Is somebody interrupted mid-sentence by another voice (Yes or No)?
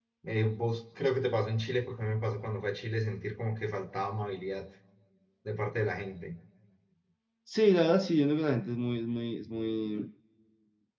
No